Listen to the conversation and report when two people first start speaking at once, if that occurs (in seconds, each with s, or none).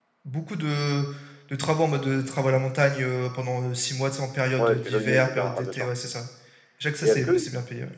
4.6 s